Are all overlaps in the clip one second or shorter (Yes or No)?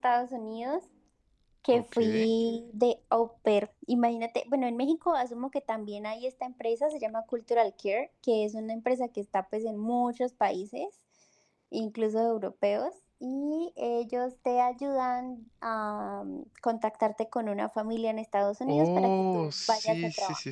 No